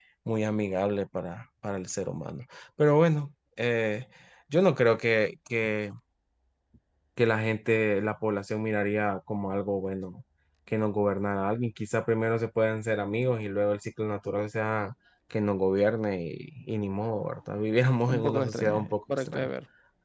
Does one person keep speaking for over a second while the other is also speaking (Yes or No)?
Yes